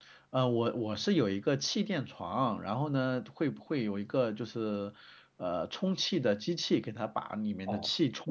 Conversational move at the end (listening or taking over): taking over